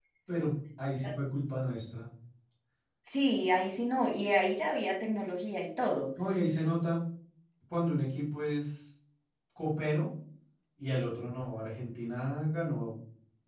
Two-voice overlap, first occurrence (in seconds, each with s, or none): none